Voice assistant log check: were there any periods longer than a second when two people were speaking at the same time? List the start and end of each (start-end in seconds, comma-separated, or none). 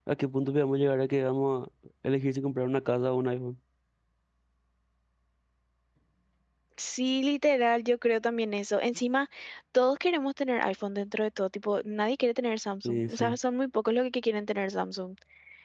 none